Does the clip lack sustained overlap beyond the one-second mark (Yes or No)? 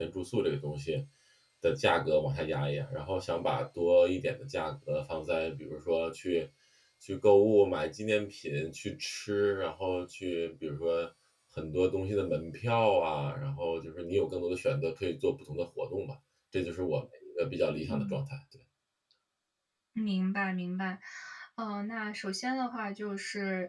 Yes